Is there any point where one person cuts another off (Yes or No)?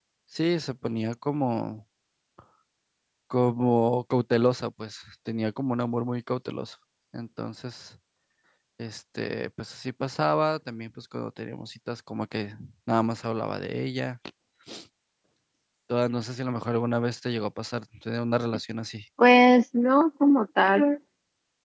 No